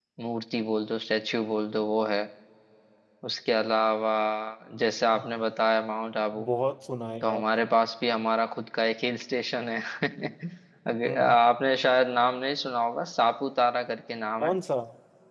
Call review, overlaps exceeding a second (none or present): none